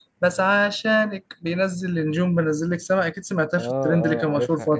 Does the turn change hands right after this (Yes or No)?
Yes